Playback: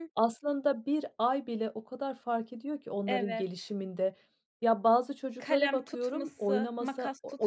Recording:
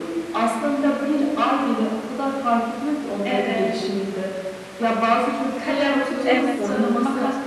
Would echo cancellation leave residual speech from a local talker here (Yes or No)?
Yes